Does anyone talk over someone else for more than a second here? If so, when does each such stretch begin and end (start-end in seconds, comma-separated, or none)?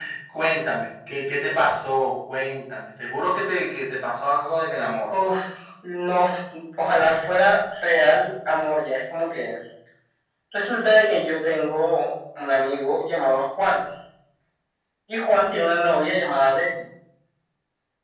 none